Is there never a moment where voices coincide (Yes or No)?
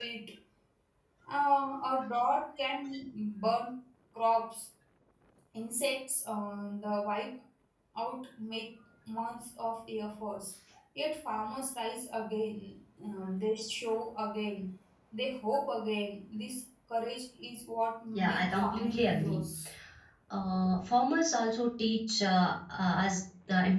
No